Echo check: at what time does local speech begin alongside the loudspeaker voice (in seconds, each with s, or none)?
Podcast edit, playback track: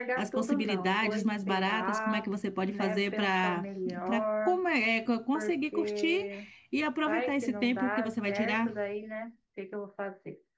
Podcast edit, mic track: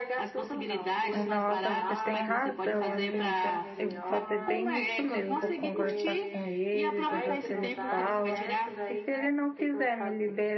1.1 s